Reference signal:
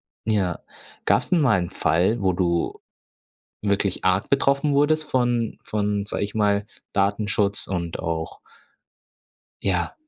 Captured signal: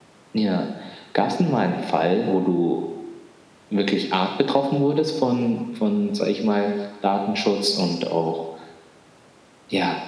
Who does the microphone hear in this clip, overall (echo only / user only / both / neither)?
echo only